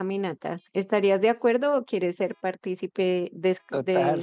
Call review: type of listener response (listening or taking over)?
taking over